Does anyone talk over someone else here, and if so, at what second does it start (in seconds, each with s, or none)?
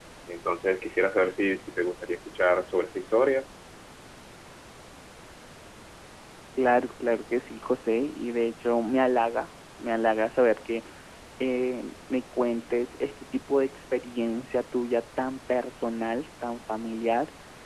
none